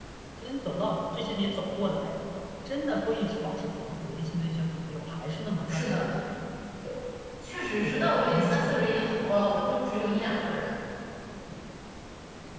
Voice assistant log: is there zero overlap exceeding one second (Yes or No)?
No